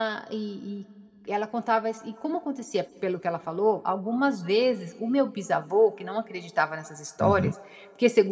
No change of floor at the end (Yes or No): Yes